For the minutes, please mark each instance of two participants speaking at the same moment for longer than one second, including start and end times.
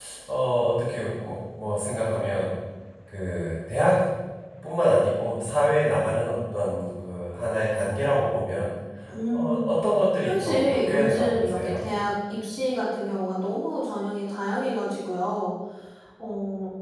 10.2-11.9

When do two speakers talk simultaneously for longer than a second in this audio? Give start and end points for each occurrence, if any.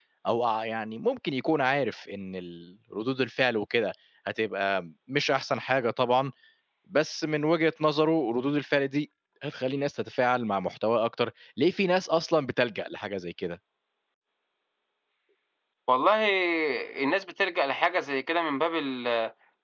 none

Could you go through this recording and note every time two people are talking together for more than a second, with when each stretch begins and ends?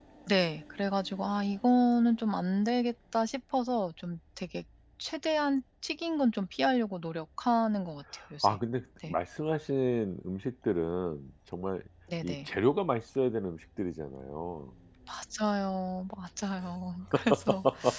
none

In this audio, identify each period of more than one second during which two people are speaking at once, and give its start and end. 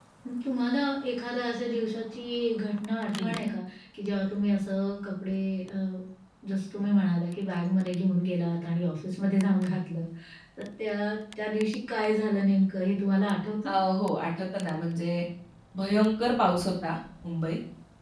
none

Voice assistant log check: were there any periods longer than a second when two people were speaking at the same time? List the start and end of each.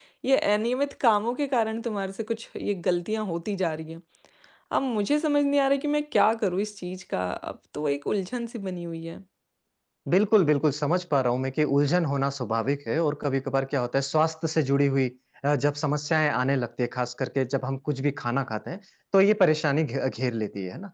none

